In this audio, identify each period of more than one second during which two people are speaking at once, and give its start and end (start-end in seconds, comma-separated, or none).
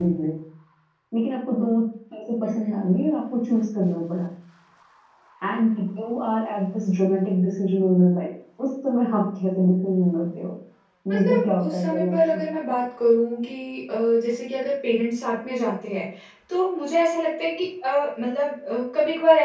11.1-12.4